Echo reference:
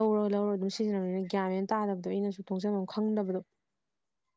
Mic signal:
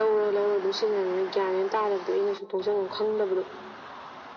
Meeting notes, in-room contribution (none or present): none